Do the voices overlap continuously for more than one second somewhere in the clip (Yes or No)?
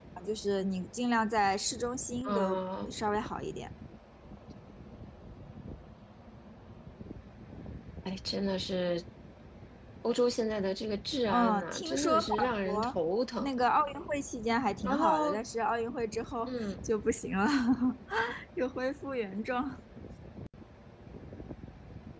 Yes